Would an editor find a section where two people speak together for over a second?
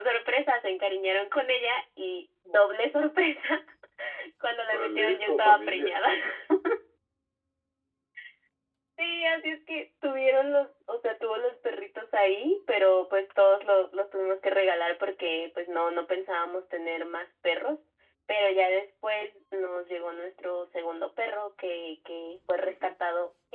Yes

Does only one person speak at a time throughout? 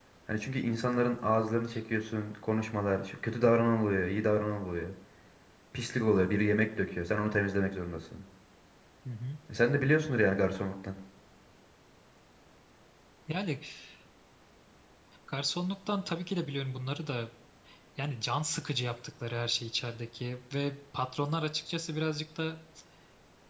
Yes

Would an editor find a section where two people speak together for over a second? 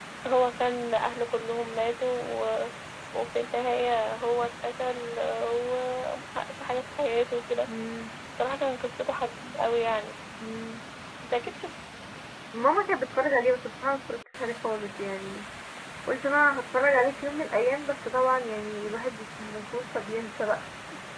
No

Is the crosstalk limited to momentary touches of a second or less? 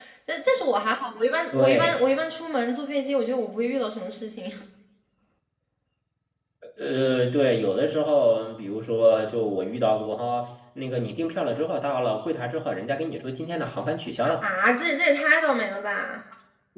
Yes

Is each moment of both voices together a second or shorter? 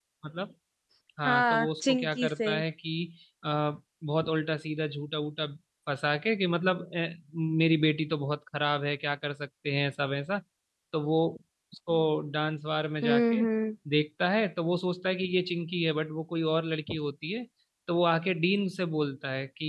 No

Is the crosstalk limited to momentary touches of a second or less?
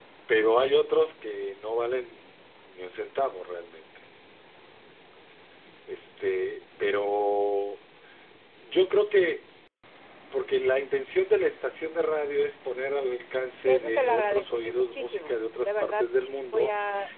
No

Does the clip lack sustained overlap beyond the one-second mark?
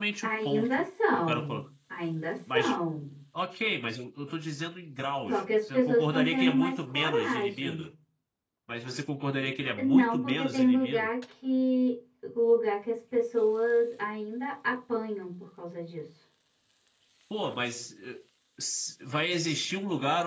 No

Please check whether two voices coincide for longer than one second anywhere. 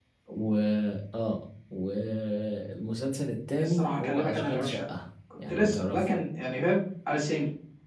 Yes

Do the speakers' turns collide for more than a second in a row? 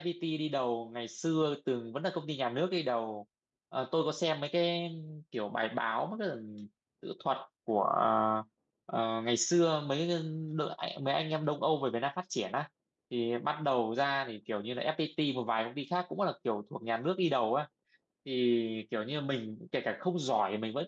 No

